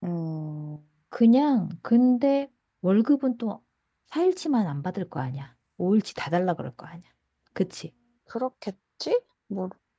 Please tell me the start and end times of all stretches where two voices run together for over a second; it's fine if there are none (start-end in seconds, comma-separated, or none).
none